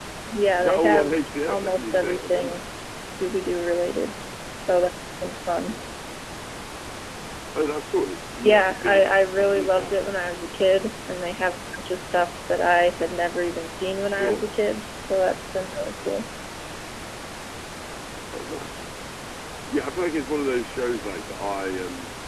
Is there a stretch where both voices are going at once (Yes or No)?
Yes